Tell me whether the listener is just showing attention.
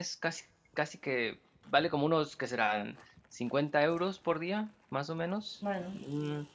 Yes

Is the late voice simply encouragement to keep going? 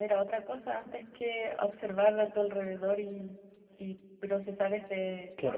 No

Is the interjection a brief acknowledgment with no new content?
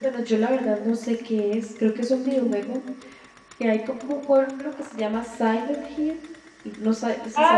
No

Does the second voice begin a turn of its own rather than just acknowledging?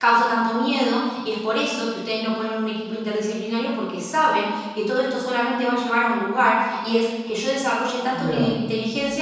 No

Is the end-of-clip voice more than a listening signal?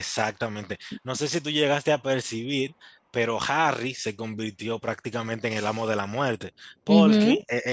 No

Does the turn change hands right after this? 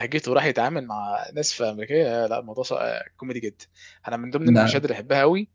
No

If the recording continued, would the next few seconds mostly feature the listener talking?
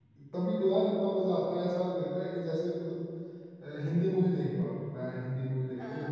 No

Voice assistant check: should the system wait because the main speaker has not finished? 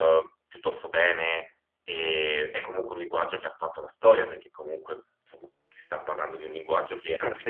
No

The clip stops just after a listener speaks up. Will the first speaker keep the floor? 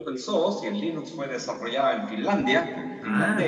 No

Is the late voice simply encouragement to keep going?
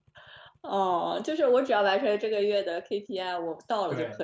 No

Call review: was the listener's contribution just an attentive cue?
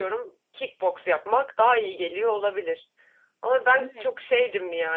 Yes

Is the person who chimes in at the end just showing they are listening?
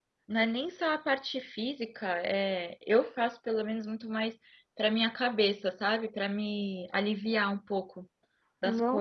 No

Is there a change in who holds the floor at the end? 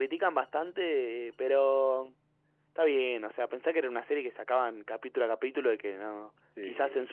No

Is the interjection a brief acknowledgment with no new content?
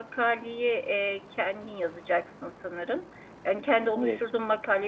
Yes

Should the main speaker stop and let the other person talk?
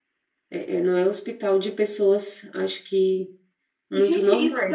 Yes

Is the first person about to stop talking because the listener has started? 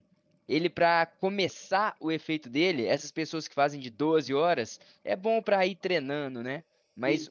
No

